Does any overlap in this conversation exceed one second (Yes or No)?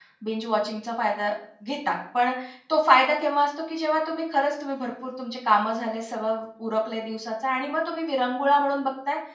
No